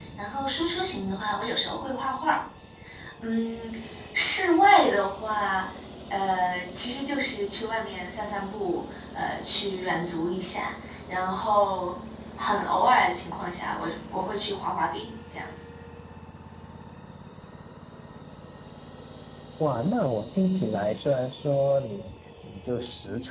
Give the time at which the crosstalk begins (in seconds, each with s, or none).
none